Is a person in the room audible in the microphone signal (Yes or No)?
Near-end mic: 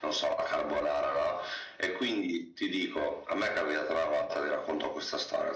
No